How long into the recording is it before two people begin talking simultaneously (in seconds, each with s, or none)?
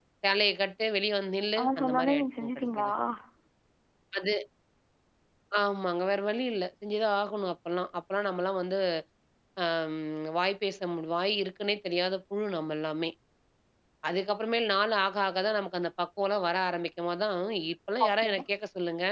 1.6 s